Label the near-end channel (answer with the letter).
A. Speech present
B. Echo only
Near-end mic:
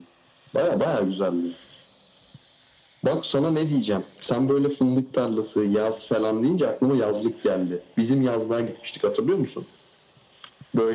B